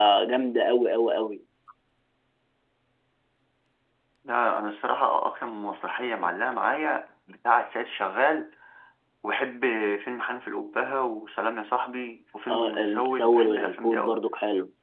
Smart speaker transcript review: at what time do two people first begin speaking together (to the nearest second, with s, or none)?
12 s